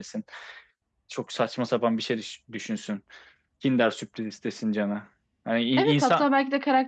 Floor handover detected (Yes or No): Yes